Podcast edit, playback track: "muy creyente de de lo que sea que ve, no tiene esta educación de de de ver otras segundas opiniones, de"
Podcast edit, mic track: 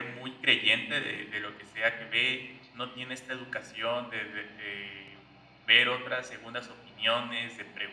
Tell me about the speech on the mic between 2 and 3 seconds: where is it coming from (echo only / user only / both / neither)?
echo only